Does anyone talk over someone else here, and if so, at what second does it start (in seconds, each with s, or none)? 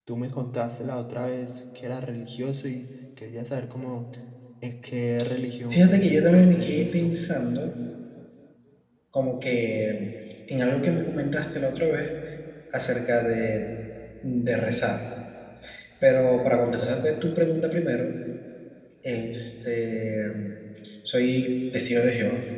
5.7 s